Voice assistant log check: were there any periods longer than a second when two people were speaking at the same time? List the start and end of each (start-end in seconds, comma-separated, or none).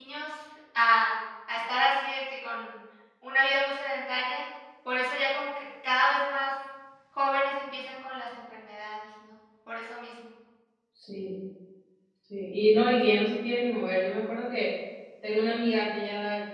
none